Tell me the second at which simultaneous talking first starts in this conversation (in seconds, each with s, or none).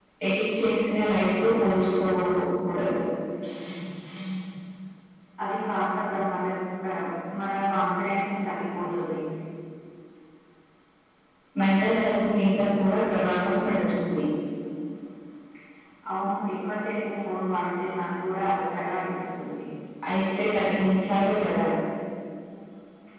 none